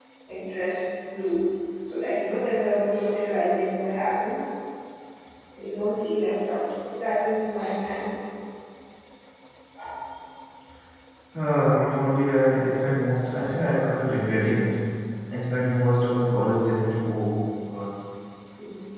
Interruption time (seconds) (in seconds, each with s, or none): none